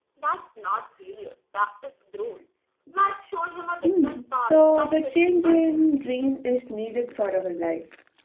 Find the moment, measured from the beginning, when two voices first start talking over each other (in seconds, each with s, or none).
3.8 s